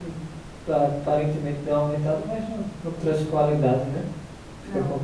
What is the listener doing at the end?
taking over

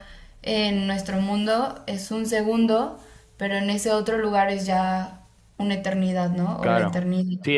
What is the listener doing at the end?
taking over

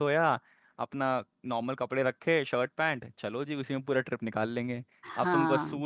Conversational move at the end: listening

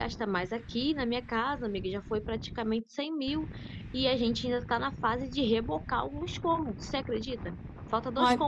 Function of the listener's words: listening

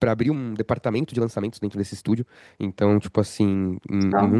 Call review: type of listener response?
listening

